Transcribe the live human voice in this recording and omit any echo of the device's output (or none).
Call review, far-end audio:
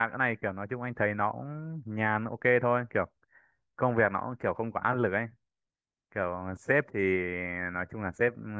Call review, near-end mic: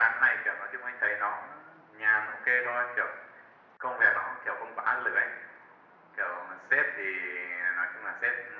none